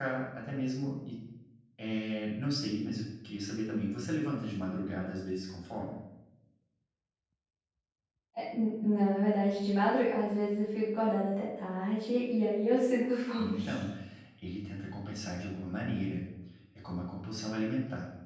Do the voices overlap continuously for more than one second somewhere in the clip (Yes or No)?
No